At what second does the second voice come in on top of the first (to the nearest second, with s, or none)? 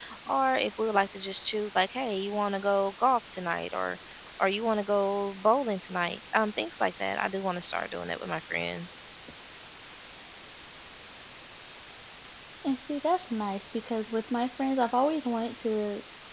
none